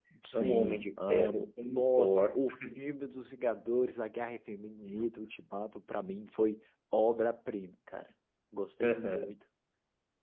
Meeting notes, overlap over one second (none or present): present